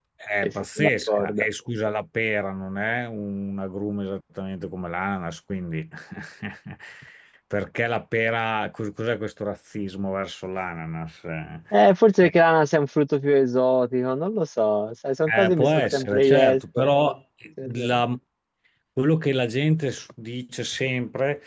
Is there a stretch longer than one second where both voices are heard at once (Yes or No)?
Yes